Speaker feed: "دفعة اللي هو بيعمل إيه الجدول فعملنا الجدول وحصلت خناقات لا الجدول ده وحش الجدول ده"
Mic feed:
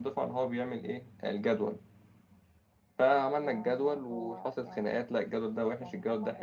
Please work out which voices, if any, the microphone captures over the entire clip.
both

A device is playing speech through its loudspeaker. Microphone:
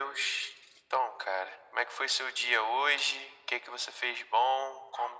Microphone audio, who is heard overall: echo only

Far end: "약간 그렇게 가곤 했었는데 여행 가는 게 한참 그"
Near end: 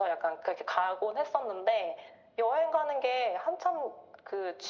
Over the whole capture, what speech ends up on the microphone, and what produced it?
echo only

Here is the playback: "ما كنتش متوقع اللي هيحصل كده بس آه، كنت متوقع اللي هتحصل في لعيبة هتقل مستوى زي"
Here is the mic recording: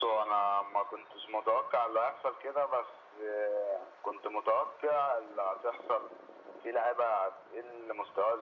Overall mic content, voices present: echo only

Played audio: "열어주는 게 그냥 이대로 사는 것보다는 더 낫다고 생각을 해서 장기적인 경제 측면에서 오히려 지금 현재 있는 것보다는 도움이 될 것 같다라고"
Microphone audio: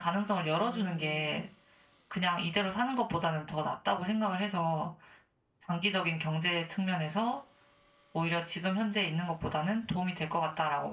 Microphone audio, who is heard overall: both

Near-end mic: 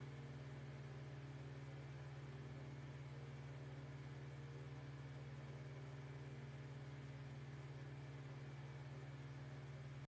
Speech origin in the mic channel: neither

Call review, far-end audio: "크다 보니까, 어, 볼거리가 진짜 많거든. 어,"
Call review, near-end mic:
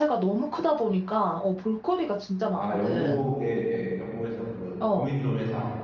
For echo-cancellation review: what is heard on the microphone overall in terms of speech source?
both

